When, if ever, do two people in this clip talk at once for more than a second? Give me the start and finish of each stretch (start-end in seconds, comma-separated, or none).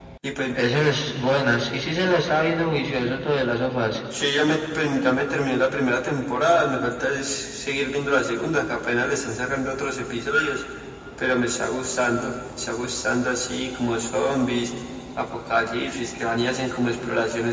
none